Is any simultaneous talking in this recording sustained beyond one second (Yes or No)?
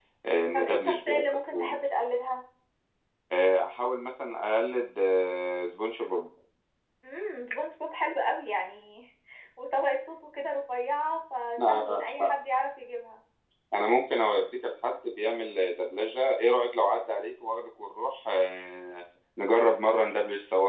Yes